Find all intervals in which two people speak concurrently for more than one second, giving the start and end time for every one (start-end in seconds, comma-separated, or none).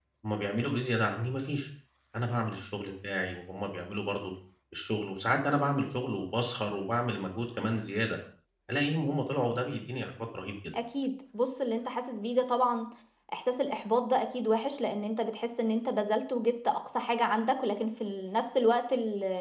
none